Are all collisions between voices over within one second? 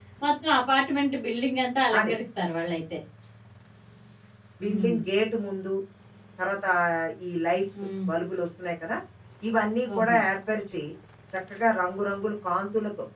Yes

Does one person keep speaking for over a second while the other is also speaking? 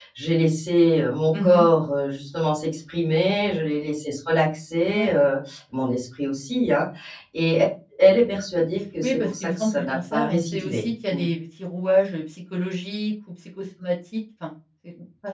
Yes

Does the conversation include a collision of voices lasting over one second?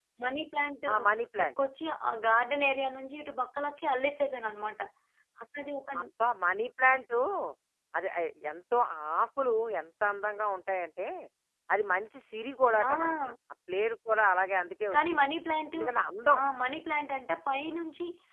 No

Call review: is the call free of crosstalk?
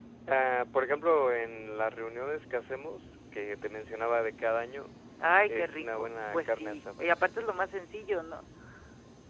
No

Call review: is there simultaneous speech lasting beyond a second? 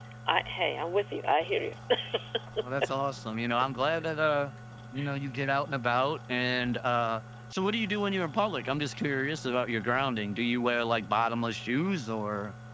No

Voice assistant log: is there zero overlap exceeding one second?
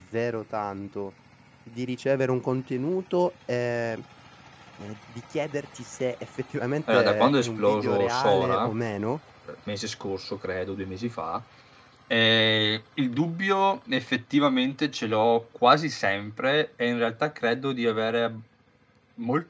No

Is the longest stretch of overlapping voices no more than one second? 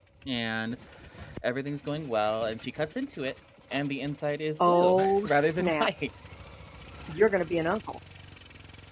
No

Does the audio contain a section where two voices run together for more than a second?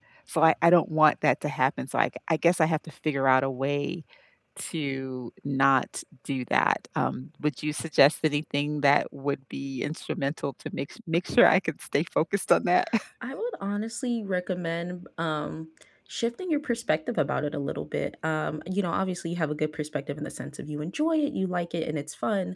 No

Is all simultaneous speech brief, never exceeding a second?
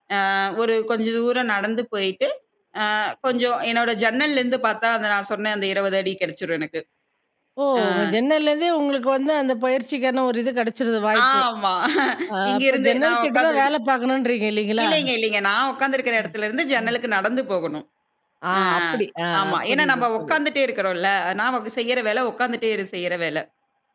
No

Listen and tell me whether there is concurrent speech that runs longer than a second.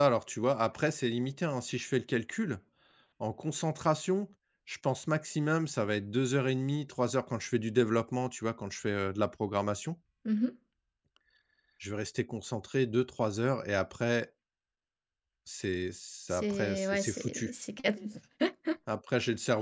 Yes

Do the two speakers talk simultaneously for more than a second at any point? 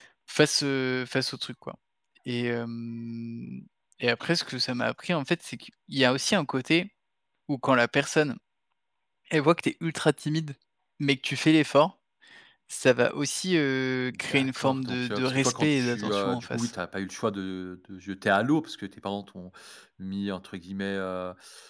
Yes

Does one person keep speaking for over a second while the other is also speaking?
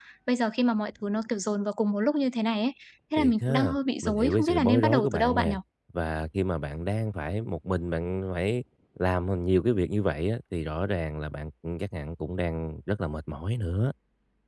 Yes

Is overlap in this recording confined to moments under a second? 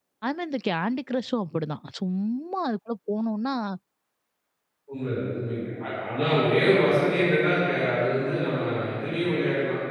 Yes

